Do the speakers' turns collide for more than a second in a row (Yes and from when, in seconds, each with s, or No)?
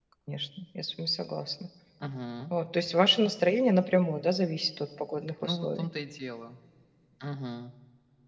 No